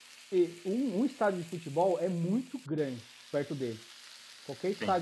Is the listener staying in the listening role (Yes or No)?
Yes